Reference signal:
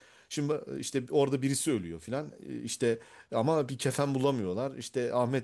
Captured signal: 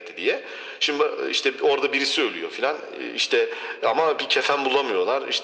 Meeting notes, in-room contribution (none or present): none